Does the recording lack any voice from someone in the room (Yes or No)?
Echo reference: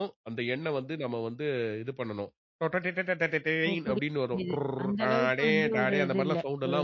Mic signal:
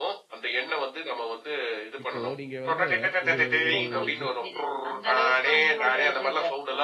No